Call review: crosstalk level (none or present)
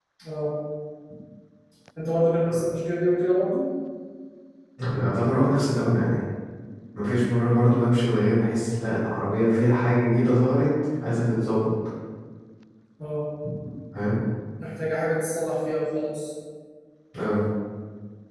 none